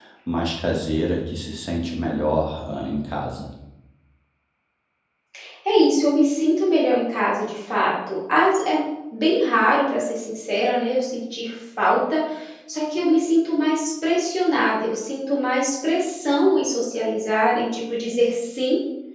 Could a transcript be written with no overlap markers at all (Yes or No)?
Yes